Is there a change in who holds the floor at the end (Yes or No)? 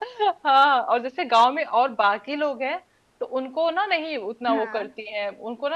No